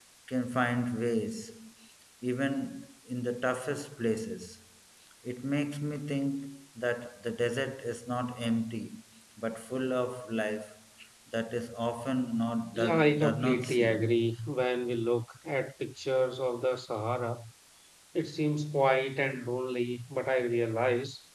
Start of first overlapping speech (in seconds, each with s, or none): 12.7 s